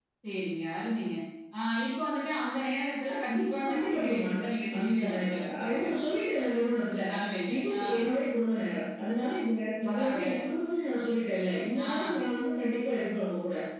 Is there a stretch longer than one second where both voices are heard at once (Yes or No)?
Yes